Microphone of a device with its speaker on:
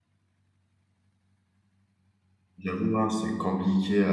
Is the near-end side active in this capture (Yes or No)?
Yes